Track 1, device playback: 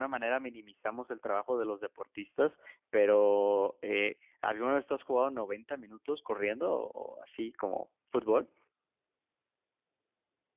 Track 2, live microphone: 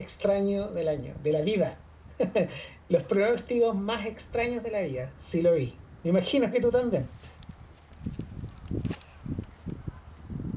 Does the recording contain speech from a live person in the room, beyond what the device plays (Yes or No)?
Yes